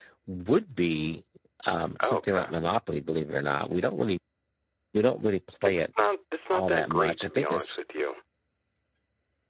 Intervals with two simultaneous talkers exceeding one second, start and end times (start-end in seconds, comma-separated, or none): 6.5-7.8